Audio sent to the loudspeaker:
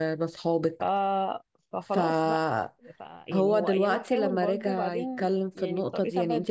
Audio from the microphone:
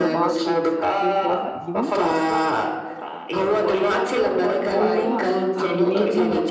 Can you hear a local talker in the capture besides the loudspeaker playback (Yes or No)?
Yes